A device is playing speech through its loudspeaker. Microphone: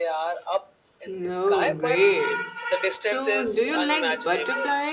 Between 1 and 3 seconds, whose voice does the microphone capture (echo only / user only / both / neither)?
both